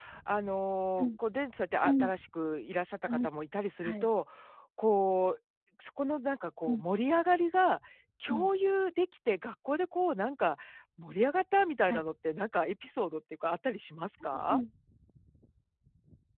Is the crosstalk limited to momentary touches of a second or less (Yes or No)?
Yes